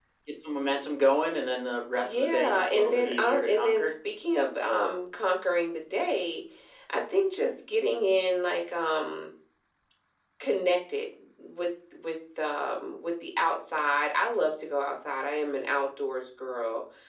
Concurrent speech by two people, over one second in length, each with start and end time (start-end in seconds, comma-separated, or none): 2.0-3.9